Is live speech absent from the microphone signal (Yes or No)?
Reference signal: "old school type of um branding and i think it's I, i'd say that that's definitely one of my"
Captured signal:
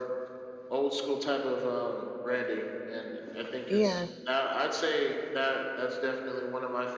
No